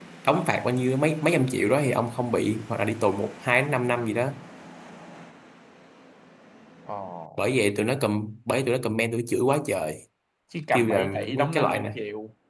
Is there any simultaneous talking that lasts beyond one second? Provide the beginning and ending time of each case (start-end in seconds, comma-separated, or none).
10.7-12.0